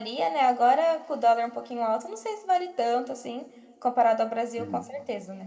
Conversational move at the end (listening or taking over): listening